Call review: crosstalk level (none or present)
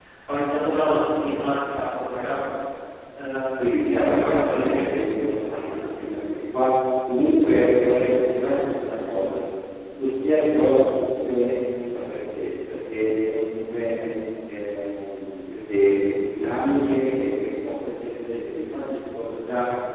present